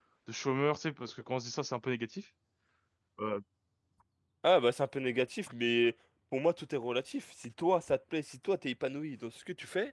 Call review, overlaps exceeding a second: none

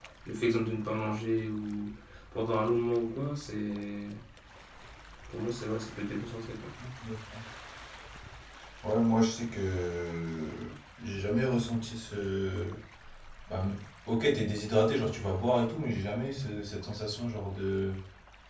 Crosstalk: none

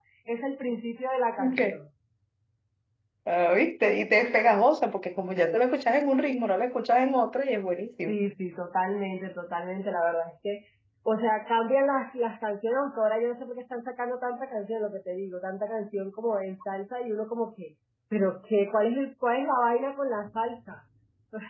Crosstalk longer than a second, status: none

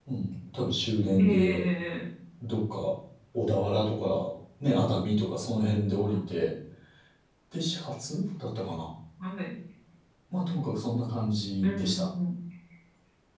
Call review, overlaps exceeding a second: none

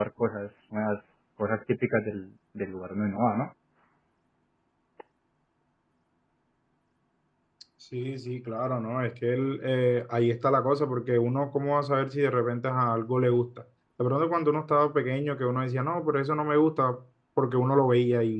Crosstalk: none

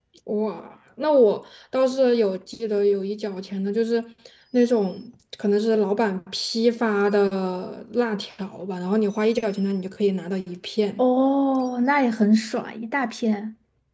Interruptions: none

